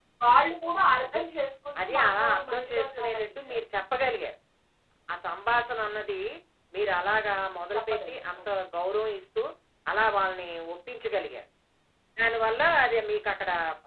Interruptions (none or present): present